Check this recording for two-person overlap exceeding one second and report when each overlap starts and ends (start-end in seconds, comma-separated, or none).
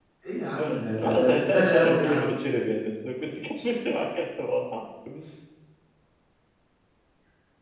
0.6-2.4